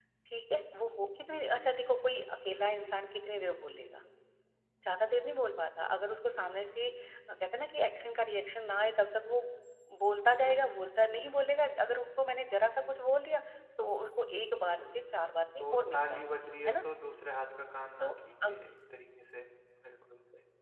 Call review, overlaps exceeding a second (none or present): present